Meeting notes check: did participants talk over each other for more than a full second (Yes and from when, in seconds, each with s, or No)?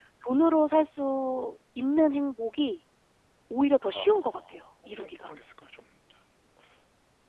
Yes, from 3.8 s